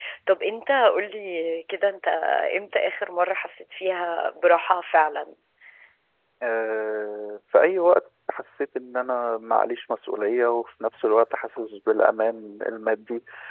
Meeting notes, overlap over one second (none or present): none